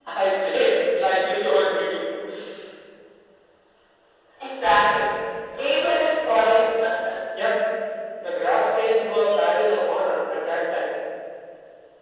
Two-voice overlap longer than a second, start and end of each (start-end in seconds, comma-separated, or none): none